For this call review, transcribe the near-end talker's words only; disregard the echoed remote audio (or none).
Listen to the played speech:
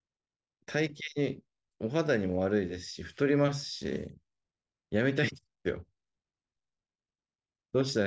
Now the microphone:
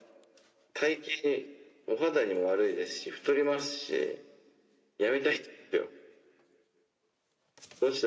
none